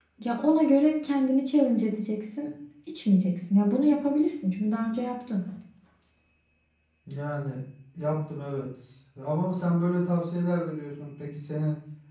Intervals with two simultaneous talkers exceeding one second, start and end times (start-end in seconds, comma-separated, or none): none